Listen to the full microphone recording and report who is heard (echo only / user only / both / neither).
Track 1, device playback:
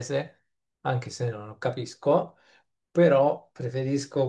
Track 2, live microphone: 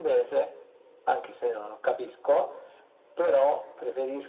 echo only